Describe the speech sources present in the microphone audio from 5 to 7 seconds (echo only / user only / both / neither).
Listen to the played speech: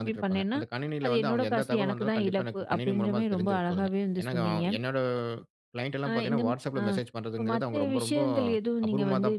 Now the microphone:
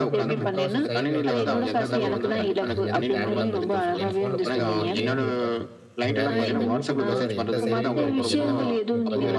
both